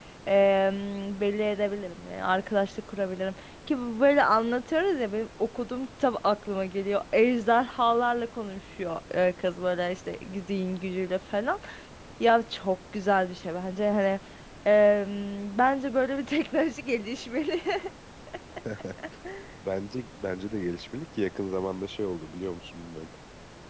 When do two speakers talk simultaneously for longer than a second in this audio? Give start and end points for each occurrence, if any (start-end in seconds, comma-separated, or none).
none